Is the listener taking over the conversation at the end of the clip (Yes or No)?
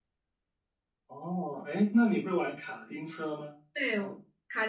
Yes